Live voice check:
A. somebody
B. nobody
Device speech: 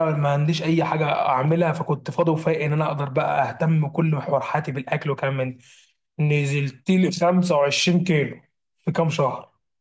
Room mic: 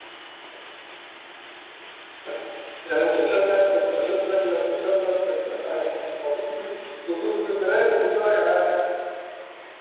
A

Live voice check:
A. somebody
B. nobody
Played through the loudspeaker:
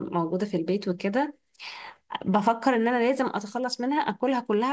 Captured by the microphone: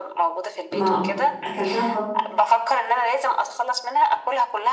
A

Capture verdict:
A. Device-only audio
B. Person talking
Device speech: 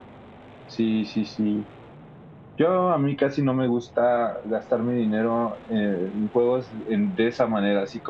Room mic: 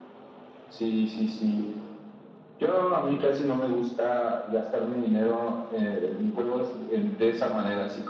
A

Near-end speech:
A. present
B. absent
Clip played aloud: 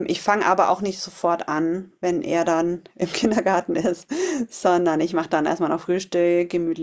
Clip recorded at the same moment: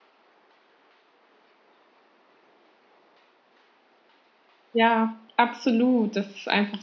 A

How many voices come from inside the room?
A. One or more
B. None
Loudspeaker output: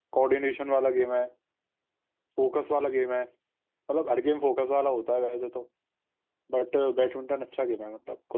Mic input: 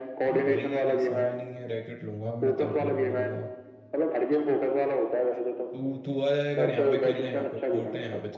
A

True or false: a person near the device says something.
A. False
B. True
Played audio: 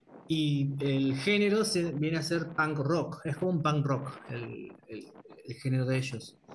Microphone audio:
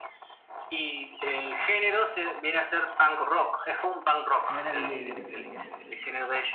B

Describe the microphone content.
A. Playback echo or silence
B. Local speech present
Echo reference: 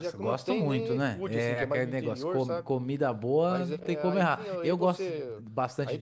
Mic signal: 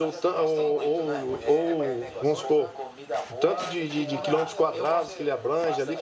B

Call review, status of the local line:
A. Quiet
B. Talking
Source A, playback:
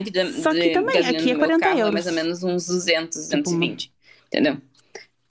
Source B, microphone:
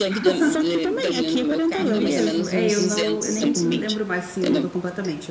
B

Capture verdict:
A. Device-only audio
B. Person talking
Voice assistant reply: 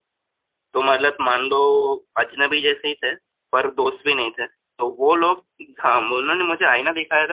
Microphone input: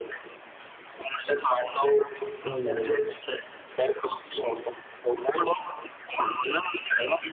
B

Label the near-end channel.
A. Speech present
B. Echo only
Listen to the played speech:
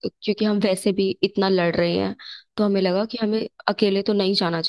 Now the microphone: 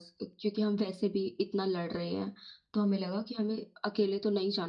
B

